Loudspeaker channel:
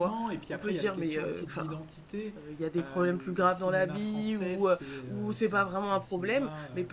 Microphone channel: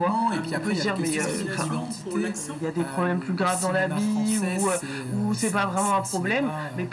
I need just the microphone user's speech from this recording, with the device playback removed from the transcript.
Euh, une discrimination pour l'accent?

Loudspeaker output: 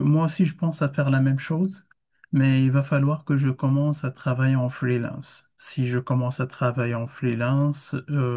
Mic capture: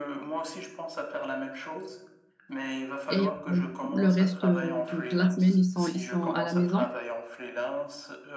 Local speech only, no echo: et euh, le reste euh, du- de la semaine, ils sont, ils sont à la maison.

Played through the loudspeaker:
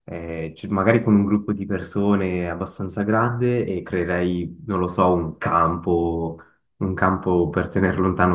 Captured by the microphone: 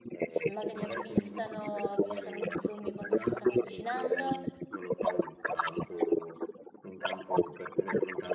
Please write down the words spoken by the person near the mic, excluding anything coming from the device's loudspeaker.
e magari avvistano, avvistano gli zombie quando si stanno avvicinando.

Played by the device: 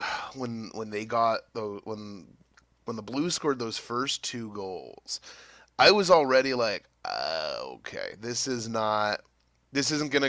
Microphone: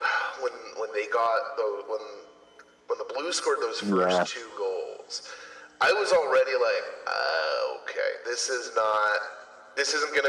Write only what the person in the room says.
Yeah.

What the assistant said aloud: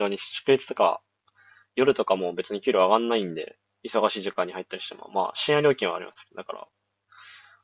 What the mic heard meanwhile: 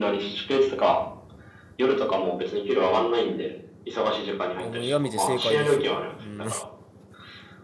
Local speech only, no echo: いや、もうやめて正解ですよ。うん。

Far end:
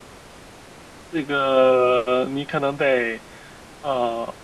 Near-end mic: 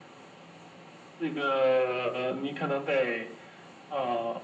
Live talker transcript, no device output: none

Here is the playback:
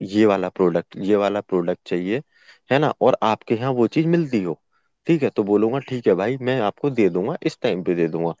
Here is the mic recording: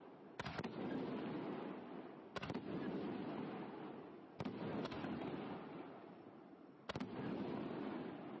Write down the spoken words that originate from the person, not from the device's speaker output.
none

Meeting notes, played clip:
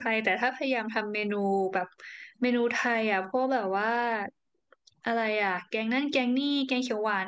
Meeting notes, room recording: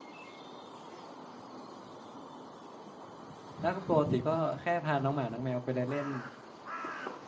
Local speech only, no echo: แล้วก็ปกติก็แค่พาน้องหมาน้องแมวไปเดินเล่น

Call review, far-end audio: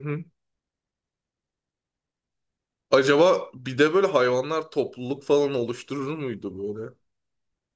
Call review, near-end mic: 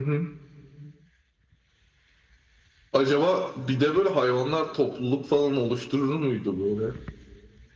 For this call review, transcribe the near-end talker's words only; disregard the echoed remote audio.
none

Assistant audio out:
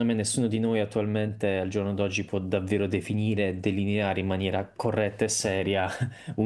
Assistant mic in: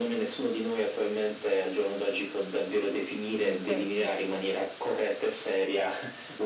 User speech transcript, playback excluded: Beh, sì,

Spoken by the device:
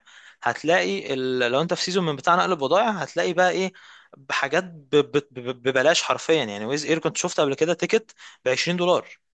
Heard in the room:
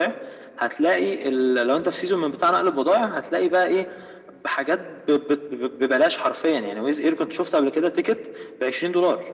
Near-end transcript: none

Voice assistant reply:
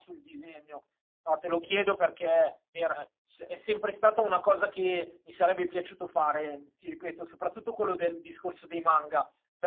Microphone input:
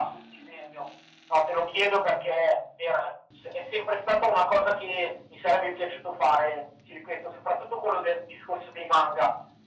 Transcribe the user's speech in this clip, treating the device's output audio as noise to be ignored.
none

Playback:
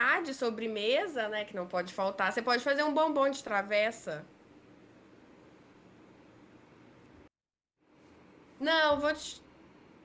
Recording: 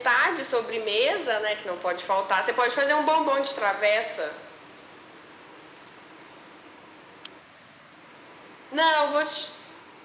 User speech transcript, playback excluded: none

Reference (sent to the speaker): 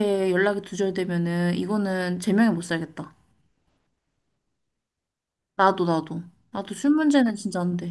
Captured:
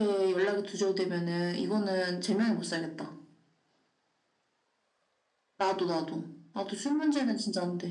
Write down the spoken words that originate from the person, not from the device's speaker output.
none

